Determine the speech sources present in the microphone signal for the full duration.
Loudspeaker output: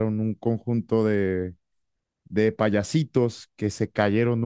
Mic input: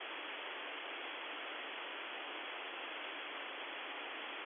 neither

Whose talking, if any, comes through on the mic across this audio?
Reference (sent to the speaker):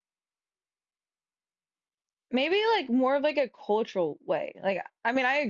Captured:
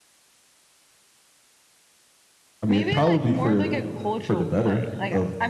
both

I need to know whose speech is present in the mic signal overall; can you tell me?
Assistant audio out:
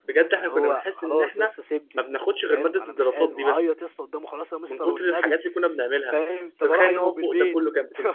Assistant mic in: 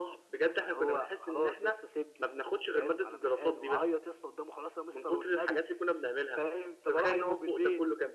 echo only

